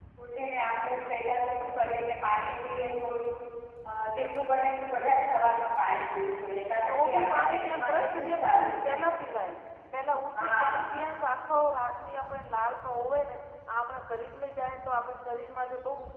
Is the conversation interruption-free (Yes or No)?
No